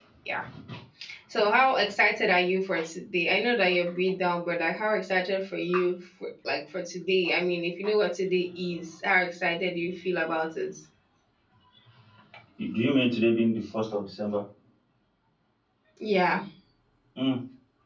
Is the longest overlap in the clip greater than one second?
No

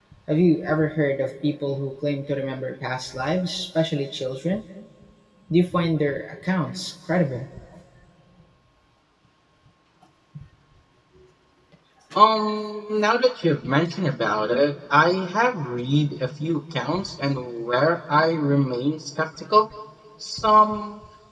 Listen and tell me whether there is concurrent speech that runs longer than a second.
No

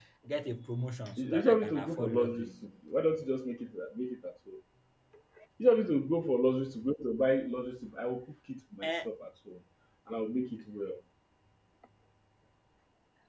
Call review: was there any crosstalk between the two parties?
Yes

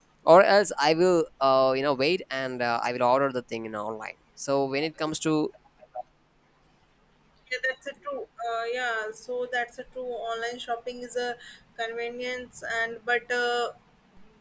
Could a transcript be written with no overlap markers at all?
Yes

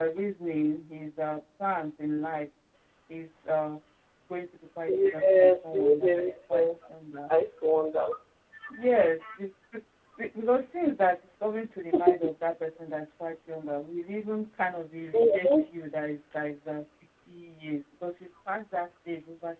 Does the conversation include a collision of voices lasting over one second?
Yes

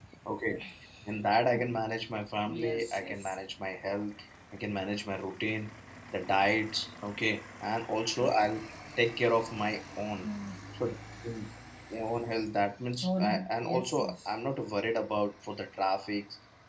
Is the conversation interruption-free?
No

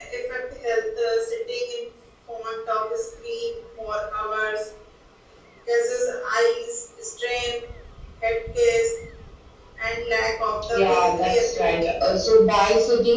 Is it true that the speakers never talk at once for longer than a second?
No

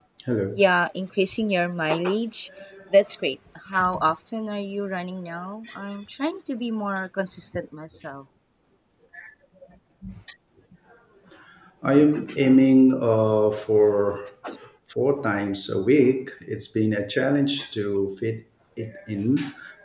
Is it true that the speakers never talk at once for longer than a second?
Yes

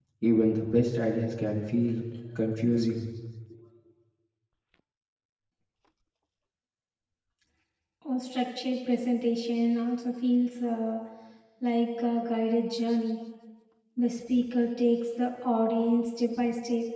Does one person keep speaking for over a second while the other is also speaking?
No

